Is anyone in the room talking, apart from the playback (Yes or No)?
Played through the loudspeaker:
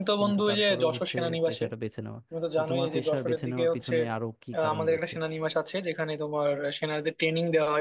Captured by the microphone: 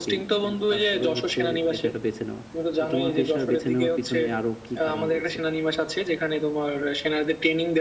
No